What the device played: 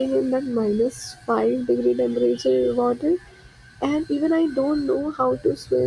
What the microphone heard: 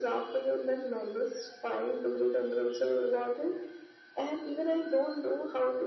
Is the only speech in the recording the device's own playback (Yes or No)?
Yes